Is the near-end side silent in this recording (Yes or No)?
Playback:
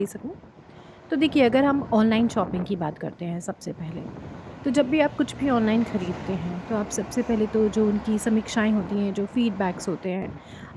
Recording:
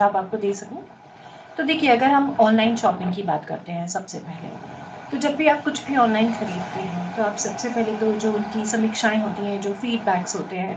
Yes